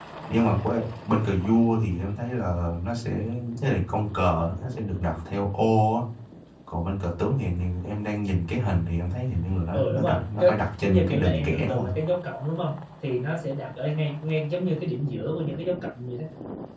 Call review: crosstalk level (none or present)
present